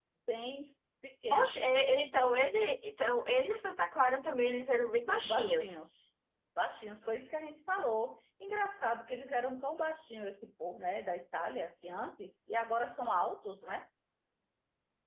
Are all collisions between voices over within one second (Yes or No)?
Yes